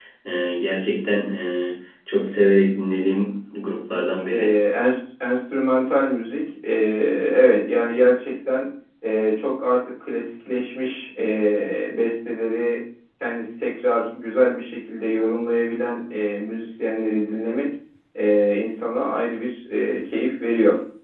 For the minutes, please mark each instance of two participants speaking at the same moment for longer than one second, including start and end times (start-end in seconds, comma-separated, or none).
none